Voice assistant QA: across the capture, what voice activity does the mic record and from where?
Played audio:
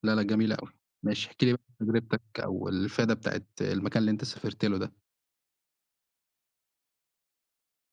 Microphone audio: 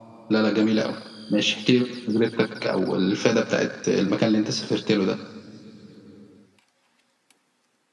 echo only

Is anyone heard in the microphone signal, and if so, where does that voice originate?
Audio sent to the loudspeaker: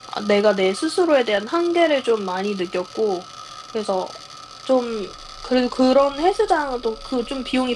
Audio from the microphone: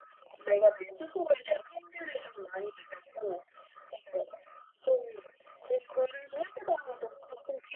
echo only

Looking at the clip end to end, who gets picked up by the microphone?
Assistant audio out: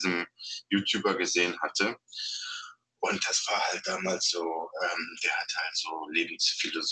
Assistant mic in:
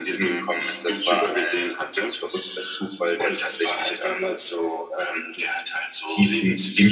both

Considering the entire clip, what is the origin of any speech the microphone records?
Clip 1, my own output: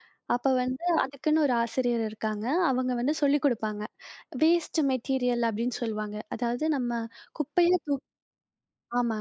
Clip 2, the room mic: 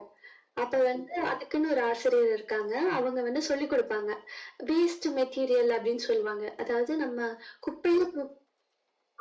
echo only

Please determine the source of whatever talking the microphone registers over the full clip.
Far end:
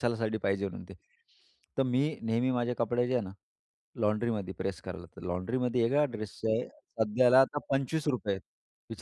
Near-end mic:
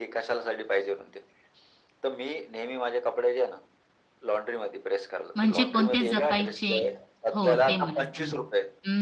both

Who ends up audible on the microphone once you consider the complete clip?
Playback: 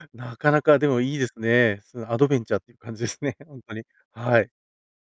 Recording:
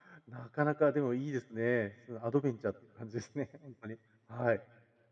echo only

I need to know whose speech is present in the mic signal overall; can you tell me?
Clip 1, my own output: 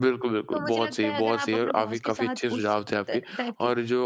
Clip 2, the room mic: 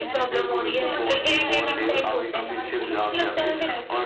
both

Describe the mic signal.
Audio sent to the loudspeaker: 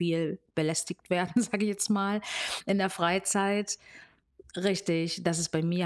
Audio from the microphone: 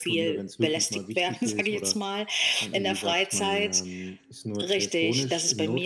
both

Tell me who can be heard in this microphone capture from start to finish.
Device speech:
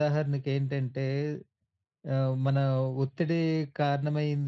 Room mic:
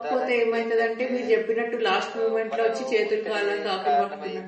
both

